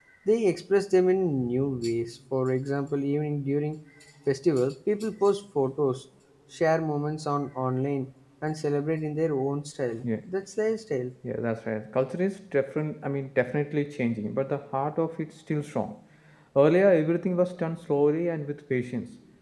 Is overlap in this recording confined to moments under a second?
Yes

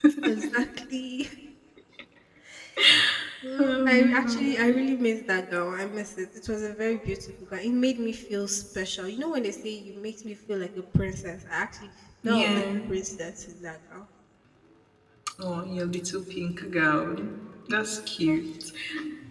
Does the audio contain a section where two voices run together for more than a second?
Yes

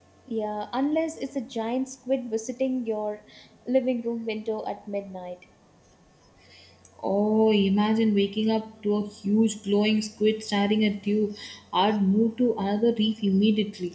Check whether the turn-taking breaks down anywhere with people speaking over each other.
No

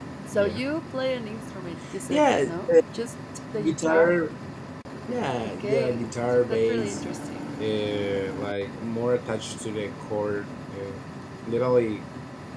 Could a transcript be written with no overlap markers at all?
No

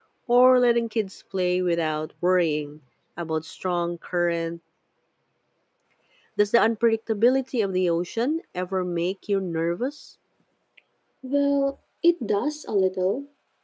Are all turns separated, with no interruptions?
Yes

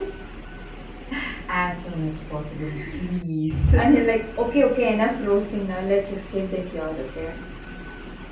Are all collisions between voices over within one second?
Yes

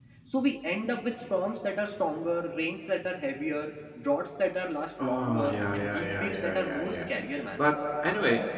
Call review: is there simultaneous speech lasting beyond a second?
Yes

